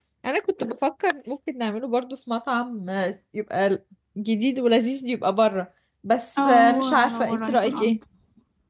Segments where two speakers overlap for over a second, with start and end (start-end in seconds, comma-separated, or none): 6.4-8.0